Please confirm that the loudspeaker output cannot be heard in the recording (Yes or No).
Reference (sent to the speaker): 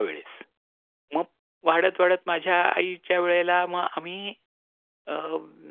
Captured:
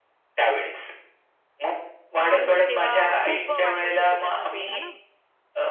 No